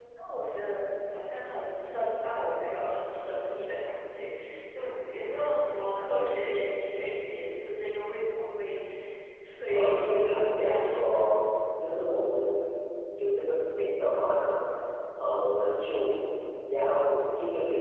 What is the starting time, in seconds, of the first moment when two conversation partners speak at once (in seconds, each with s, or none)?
9.7 s